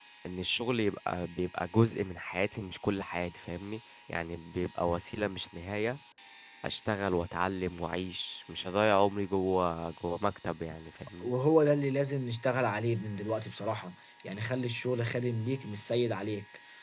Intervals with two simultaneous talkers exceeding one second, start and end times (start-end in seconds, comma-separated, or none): none